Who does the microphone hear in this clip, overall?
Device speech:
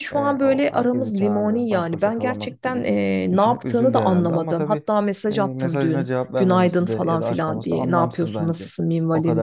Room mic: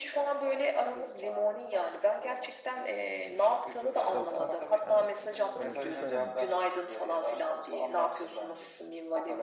both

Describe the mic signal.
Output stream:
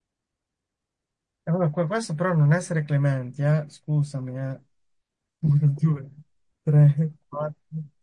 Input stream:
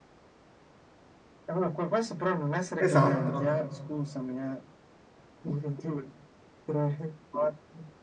both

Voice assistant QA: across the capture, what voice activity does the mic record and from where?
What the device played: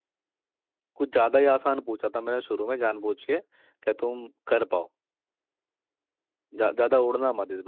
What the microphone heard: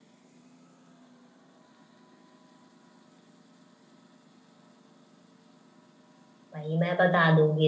user only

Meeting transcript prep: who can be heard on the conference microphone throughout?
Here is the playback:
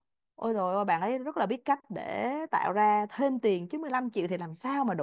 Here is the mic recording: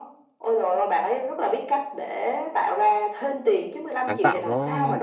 both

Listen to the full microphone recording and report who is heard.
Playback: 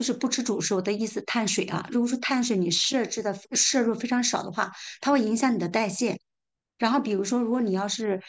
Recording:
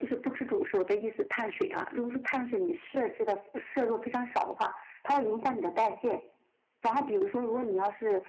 echo only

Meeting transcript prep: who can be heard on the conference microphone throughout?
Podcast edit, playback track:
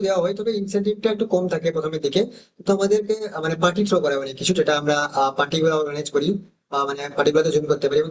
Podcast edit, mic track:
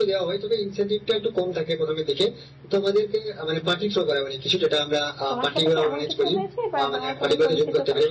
both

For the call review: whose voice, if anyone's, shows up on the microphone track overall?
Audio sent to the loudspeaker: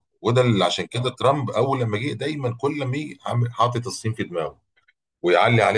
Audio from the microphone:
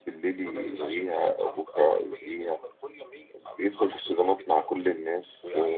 both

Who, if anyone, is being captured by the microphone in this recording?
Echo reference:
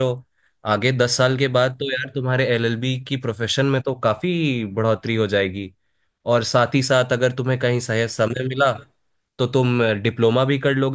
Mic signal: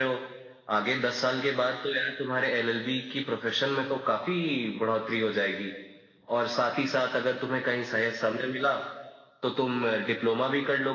echo only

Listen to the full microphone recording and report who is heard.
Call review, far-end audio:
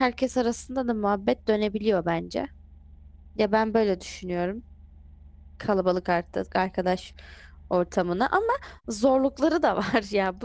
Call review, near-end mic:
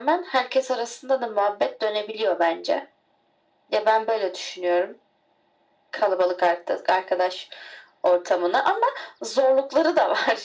echo only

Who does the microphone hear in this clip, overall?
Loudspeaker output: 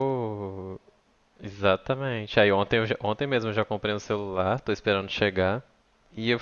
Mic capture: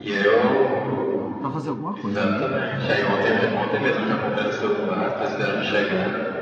both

